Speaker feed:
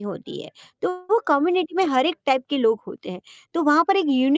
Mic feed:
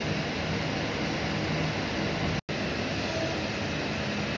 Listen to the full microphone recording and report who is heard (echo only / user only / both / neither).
neither